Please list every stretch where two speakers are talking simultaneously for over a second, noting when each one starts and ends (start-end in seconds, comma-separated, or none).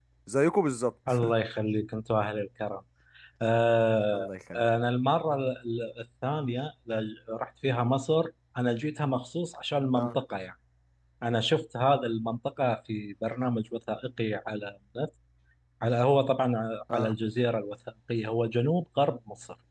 none